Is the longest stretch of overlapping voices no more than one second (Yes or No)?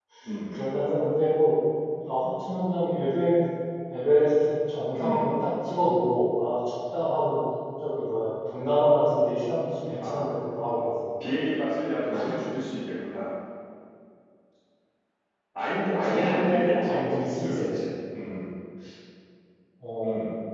No